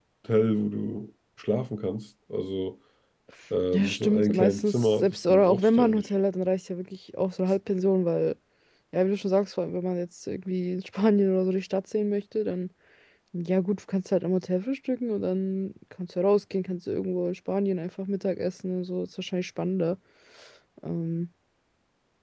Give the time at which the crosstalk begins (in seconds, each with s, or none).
3.7 s